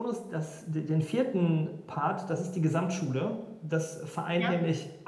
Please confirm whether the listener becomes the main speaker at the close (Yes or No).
No